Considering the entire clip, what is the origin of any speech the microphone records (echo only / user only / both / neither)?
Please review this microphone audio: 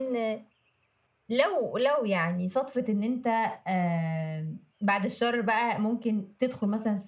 echo only